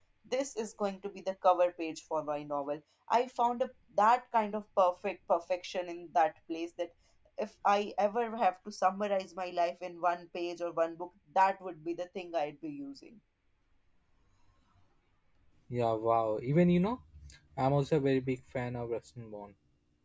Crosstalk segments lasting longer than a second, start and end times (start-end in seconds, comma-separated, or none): none